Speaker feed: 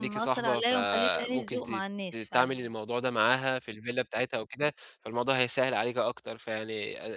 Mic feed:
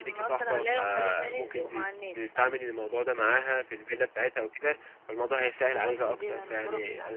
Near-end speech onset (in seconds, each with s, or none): 5.7 s